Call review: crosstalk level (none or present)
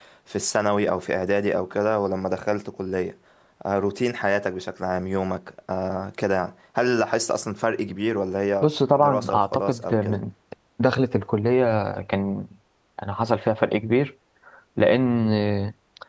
present